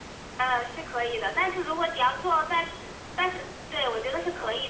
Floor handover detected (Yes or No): No